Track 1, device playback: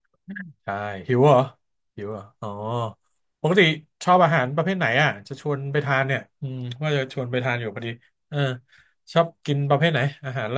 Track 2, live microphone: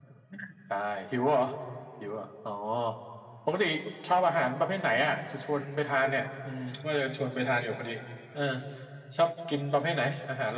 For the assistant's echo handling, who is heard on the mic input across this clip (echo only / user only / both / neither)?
echo only